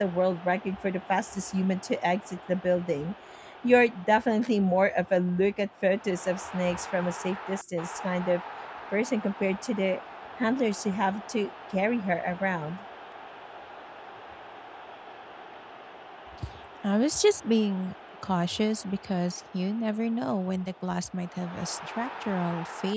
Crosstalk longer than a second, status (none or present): none